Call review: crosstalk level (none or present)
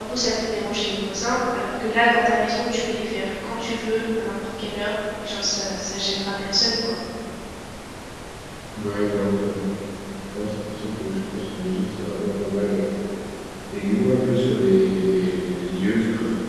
none